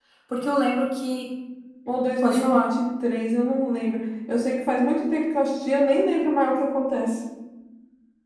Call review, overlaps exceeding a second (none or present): none